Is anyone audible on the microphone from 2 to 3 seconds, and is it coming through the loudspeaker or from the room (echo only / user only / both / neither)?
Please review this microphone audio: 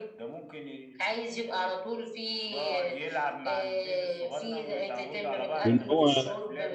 echo only